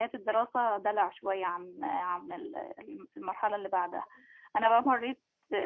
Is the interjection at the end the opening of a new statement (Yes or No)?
No